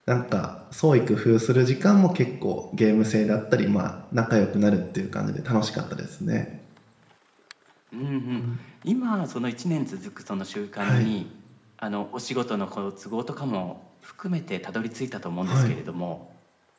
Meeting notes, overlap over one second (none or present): none